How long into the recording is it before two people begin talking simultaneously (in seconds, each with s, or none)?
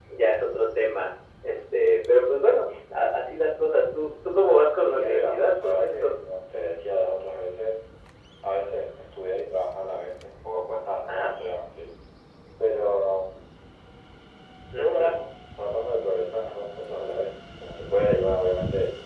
4.8 s